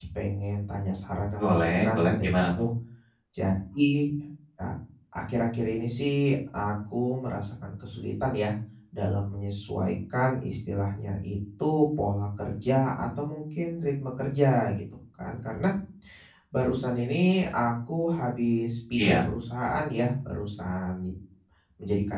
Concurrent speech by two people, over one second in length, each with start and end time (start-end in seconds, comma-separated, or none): 1.4-2.6